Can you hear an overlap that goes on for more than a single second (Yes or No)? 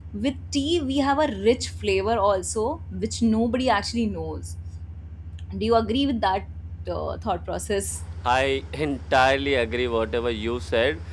No